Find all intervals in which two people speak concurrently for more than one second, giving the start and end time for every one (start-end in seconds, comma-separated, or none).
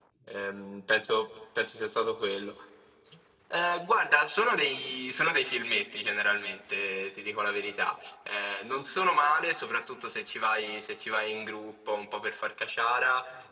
none